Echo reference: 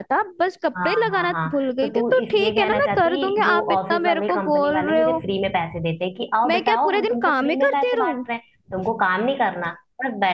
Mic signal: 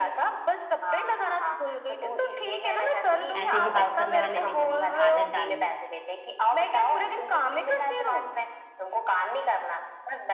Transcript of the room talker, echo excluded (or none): ऐसे भी बात करने वाले मिलेंगे तो आदत डाल लो